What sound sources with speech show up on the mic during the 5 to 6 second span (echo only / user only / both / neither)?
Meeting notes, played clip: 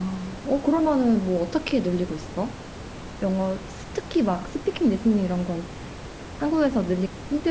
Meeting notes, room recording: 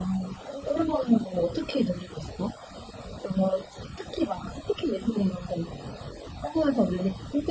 echo only